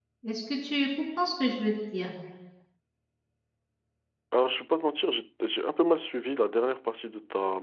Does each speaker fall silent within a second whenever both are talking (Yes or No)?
Yes